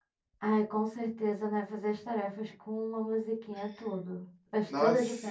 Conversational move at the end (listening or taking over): taking over